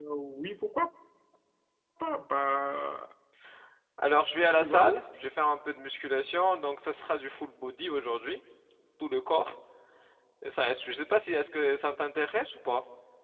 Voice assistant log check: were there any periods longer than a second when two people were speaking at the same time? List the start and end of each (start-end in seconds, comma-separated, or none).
none